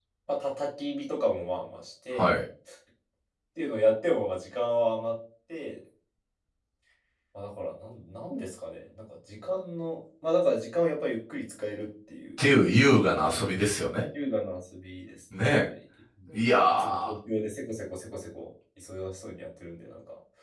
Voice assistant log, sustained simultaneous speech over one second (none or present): none